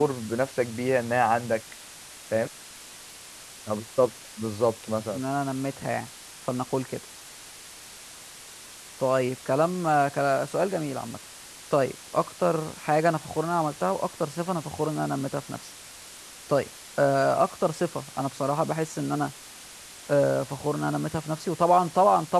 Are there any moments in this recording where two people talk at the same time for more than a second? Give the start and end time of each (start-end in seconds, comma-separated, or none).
none